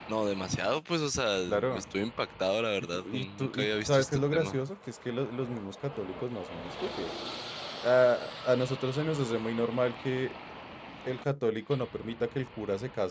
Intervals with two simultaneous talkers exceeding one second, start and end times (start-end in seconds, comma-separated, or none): 2.9-4.6